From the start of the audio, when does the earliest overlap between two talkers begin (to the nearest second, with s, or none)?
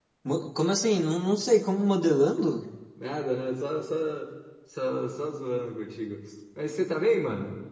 none